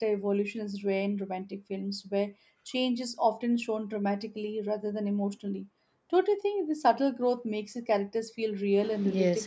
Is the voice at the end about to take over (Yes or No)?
Yes